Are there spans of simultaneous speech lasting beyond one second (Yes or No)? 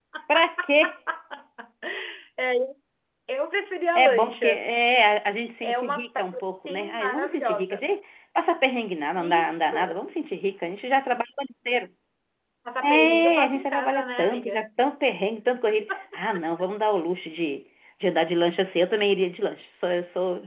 Yes